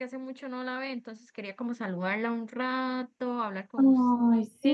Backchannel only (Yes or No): No